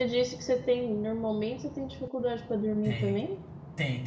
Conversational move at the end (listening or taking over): taking over